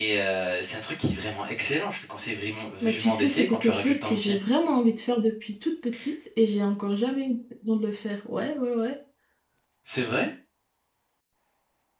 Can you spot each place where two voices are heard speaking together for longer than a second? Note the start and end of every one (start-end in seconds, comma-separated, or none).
2.8-4.3